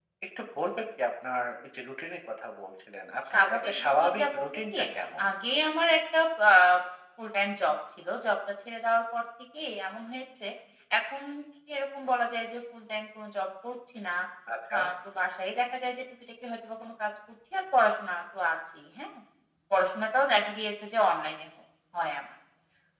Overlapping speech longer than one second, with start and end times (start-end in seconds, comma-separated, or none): 3.3-4.8